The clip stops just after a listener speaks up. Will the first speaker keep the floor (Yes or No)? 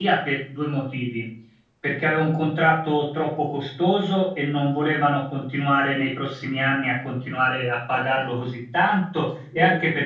Yes